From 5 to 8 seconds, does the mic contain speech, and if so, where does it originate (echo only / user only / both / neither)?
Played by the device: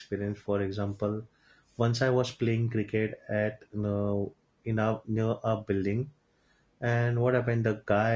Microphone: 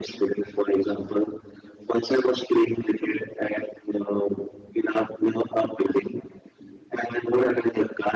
echo only